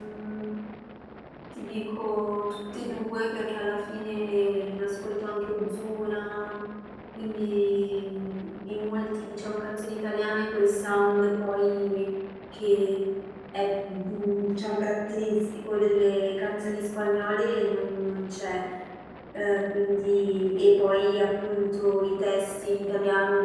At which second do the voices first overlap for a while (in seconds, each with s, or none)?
none